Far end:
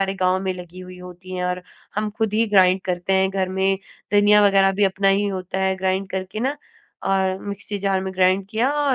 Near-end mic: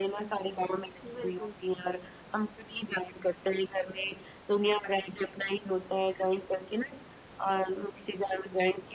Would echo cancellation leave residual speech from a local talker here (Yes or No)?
Yes